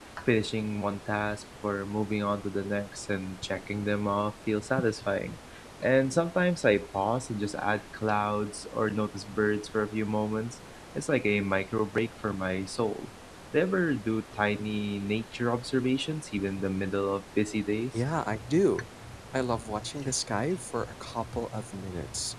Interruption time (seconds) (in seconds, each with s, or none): none